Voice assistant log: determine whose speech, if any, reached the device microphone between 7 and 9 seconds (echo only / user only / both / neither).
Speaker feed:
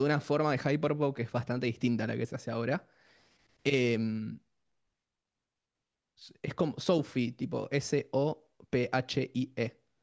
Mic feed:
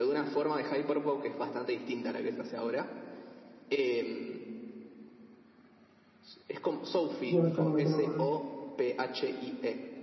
both